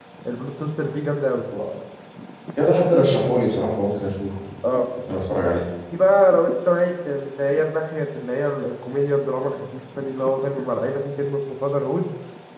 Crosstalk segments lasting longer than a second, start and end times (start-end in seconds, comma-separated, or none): none